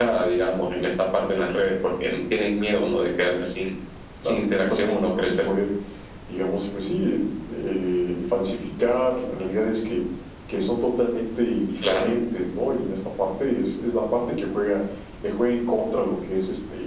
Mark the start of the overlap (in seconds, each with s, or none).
4.2 s